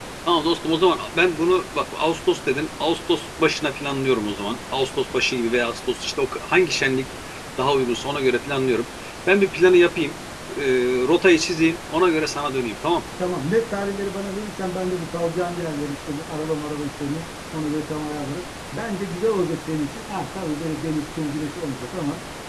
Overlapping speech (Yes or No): No